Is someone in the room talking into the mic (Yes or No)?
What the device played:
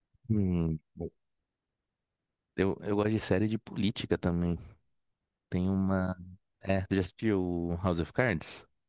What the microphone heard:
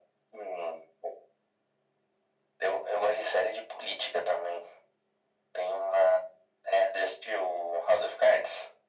No